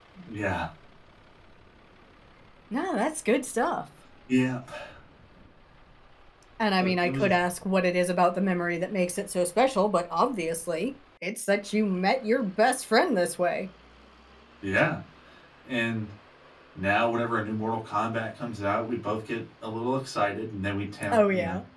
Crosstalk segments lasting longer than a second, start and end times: none

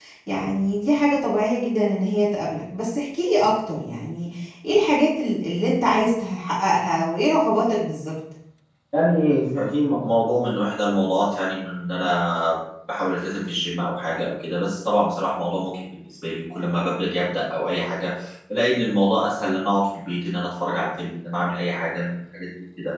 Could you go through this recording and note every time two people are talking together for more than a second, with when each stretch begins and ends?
none

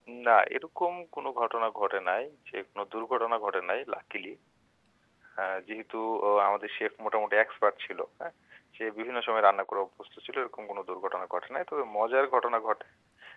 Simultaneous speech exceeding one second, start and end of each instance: none

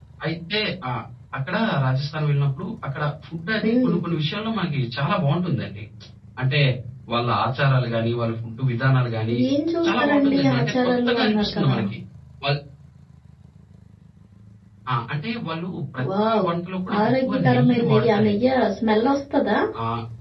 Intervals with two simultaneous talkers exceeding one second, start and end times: 9.9-11.8, 17.0-18.4

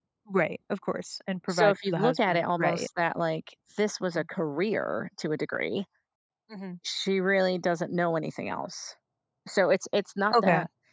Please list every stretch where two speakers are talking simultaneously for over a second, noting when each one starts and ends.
1.5-2.9

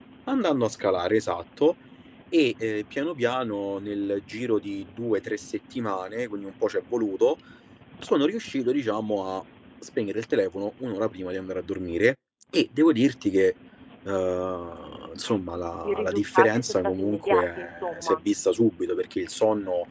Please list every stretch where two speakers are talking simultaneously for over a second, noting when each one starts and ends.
15.8-18.2

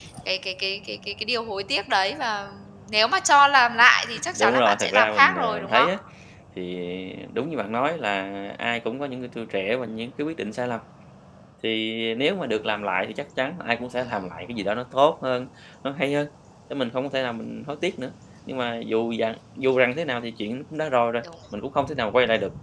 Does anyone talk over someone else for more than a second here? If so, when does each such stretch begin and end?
4.4-5.9

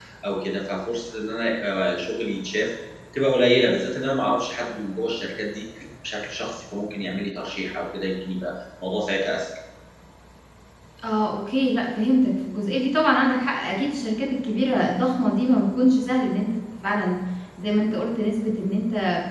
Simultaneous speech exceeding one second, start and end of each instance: none

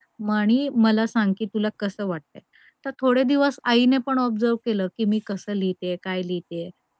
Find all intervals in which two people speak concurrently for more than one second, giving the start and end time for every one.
none

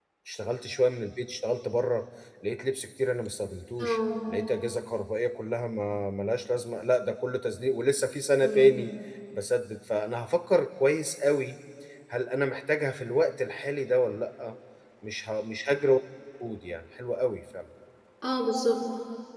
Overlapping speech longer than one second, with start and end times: none

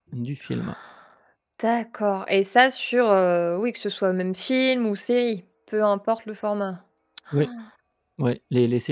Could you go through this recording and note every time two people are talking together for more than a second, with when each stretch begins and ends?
none

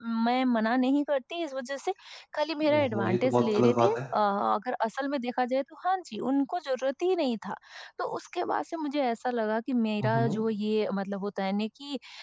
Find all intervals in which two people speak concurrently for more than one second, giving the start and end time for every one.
2.7-4.0

